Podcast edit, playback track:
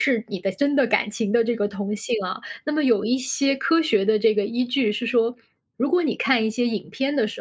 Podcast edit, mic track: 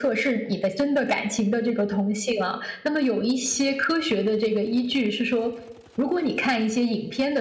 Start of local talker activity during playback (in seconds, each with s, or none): none